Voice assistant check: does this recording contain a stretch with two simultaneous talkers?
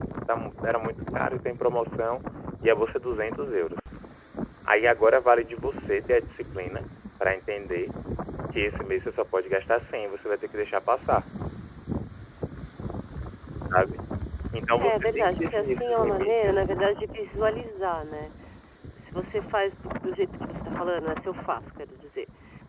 Yes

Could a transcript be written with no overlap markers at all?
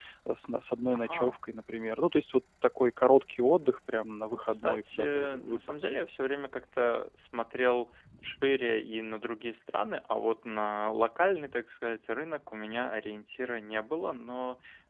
No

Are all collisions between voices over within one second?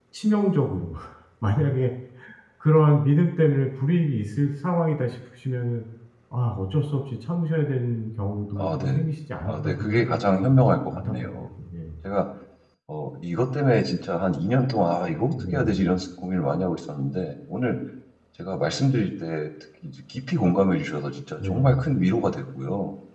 No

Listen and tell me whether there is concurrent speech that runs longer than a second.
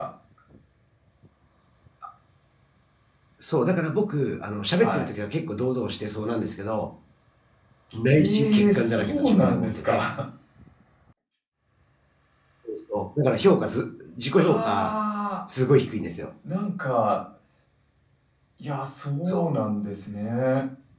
Yes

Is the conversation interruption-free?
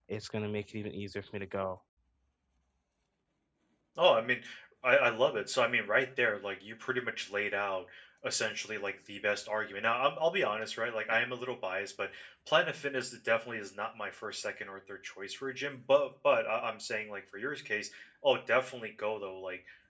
Yes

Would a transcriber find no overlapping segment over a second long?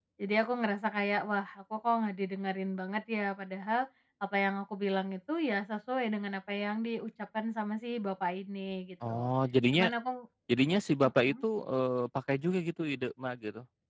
Yes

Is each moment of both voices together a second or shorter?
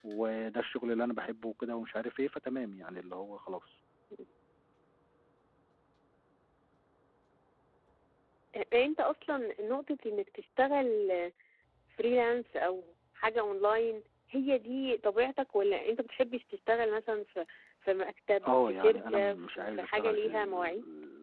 No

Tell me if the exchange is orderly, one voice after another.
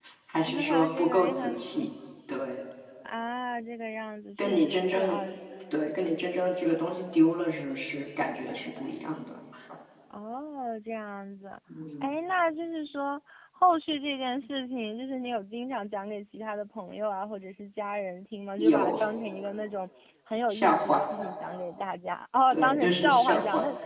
No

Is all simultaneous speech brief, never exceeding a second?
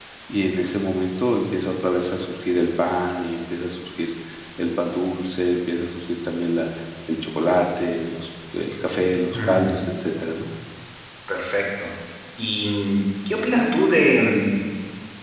Yes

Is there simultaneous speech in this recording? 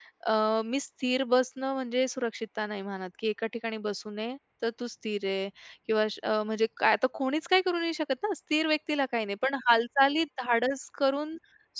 No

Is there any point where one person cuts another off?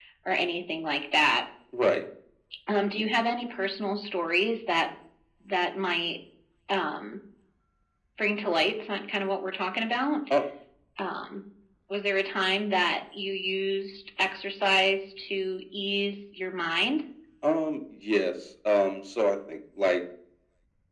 No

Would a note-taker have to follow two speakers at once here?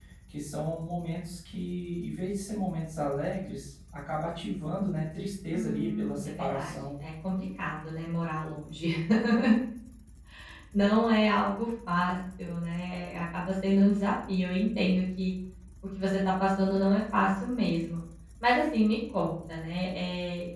Yes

